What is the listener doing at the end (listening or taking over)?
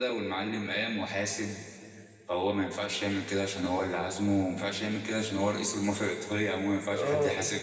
taking over